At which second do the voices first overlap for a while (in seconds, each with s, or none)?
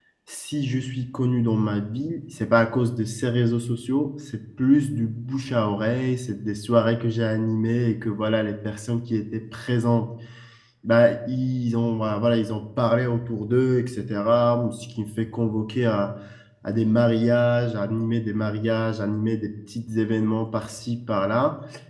none